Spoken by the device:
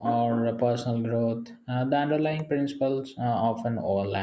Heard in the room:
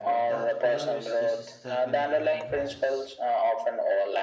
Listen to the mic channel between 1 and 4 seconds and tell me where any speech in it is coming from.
both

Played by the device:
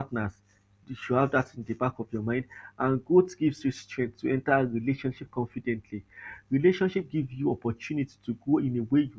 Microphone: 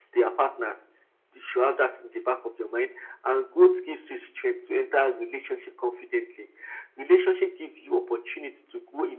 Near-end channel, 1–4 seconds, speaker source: echo only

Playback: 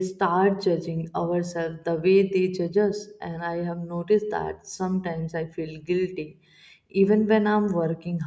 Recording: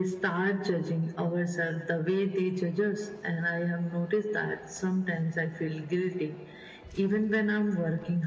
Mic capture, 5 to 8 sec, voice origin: echo only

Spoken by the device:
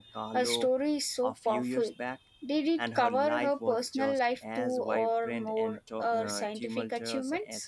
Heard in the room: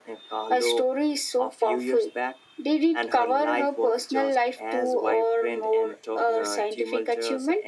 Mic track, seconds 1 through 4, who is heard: echo only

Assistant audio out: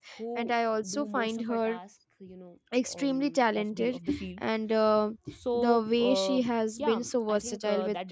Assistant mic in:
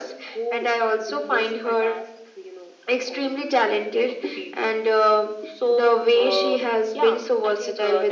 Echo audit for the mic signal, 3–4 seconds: echo only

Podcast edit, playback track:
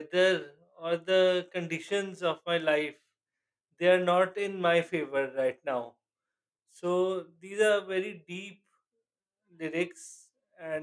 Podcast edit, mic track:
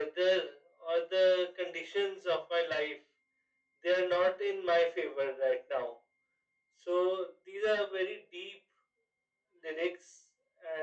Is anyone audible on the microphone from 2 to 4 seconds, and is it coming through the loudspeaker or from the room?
echo only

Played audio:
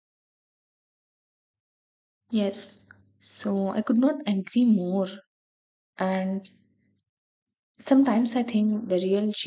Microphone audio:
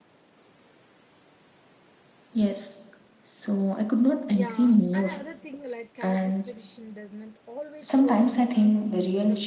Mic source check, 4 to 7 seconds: both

